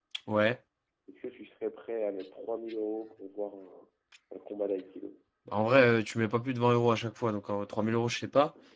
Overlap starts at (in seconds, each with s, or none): none